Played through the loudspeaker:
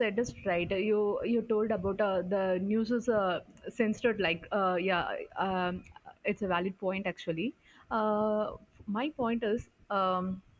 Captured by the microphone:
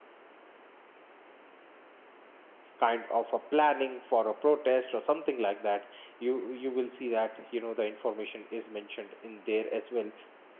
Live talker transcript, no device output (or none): kind of a planning for a protest or something like that you you will see that you know the information is mentioned in there as well